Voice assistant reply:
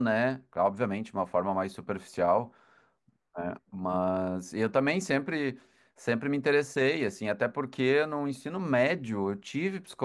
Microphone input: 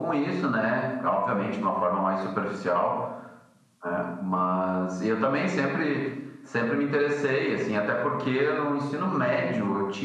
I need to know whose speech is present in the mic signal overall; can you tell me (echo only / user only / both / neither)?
echo only